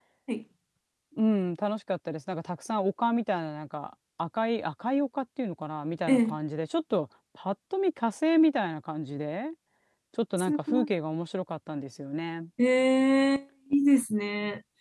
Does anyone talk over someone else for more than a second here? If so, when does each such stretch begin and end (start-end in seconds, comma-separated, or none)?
none